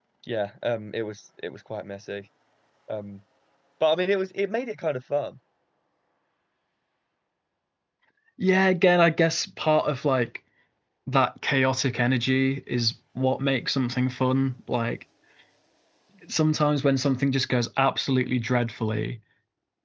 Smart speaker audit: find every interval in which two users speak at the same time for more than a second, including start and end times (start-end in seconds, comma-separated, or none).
none